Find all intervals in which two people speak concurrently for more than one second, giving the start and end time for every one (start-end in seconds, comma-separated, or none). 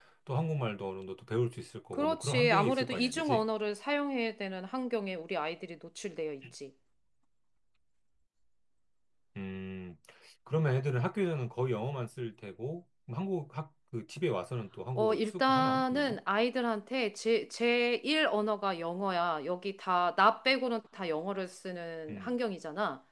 1.9-3.4, 14.9-16.2